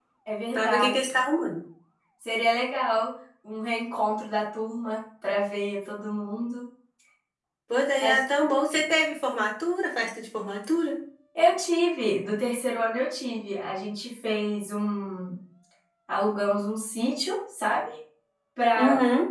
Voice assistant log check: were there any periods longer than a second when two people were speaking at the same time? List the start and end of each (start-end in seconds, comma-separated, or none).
none